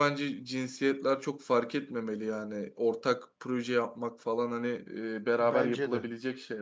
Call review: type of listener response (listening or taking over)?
listening